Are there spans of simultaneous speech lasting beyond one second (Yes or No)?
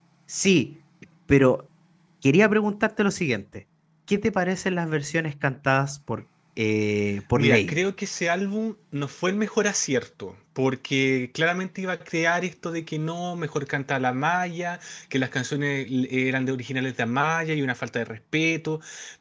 No